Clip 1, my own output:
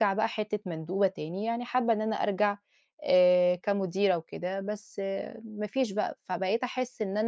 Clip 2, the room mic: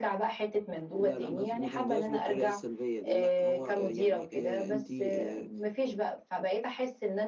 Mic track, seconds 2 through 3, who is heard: both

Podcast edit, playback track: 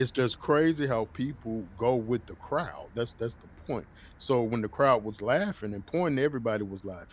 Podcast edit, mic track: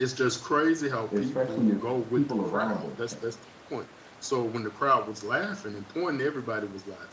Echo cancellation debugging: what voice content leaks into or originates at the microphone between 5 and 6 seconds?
echo only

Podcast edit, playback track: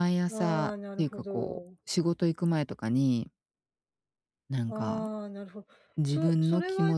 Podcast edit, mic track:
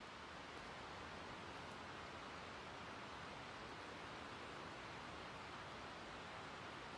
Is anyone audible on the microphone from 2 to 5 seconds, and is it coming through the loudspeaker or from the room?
neither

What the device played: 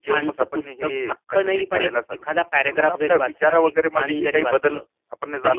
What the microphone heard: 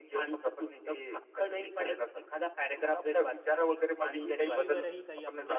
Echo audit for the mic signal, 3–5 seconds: both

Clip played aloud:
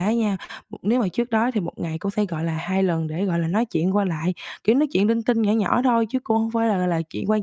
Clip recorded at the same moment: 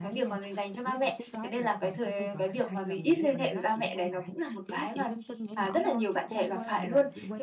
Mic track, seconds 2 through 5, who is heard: both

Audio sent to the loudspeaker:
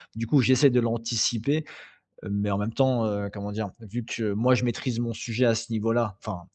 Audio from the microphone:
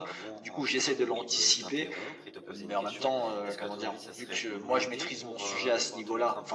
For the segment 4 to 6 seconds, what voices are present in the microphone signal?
both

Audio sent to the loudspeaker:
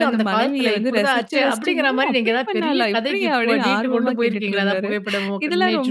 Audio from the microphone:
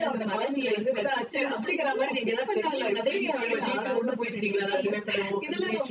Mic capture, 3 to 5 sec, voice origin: both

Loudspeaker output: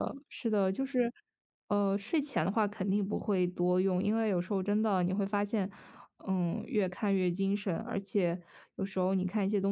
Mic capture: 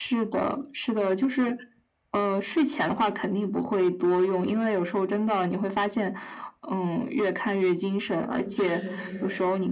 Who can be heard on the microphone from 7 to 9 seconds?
both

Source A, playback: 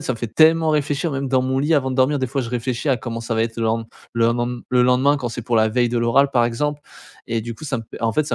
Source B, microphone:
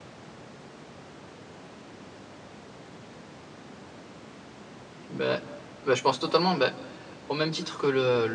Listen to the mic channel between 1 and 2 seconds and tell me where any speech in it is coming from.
neither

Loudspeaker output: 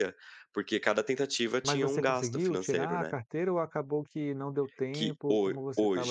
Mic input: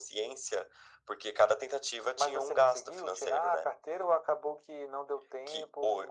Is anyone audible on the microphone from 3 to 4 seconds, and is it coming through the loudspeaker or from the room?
echo only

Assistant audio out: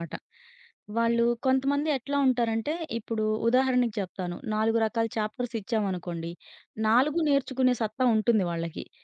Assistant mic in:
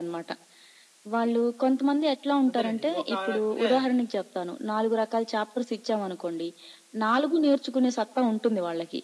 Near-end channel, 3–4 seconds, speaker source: both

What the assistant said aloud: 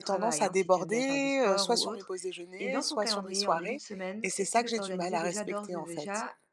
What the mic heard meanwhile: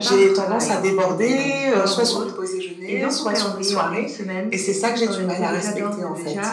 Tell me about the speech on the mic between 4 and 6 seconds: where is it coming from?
echo only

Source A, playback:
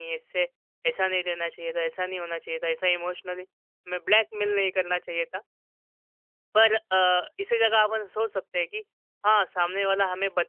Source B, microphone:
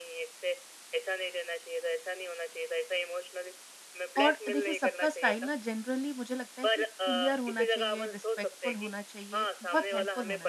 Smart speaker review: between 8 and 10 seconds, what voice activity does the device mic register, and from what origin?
both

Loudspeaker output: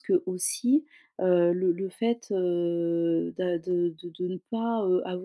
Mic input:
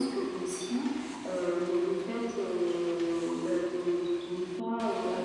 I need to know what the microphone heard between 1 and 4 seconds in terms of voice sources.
echo only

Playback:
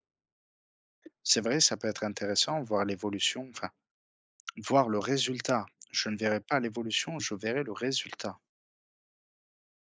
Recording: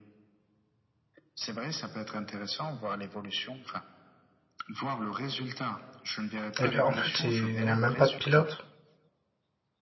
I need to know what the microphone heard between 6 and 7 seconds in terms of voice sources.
both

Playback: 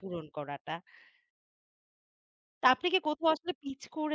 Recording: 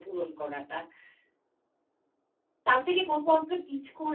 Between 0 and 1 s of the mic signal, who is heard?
echo only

